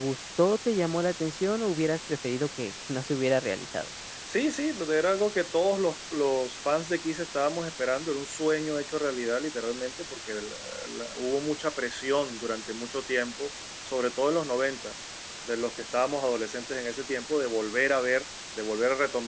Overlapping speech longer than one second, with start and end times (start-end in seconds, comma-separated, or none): none